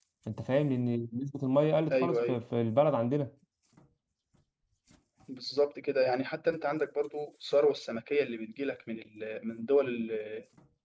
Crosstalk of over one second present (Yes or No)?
No